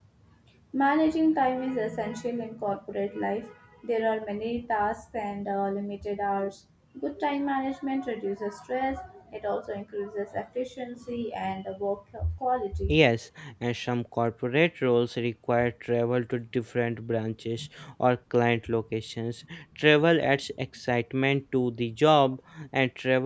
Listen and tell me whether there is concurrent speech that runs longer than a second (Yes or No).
No